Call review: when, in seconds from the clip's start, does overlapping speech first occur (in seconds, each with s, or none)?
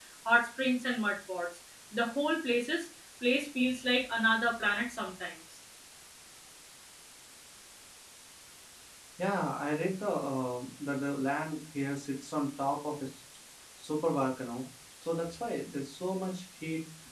none